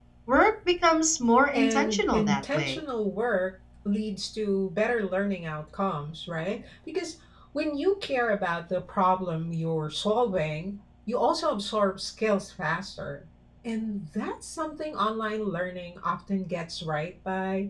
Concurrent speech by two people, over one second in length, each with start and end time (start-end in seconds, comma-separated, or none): 1.5-2.8